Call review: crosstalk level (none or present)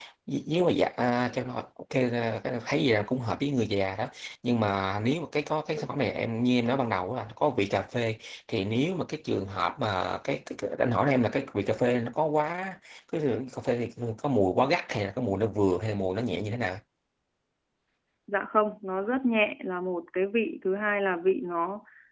none